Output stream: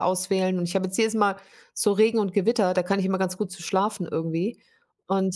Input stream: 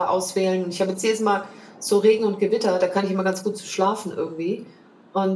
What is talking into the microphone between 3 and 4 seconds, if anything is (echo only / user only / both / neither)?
echo only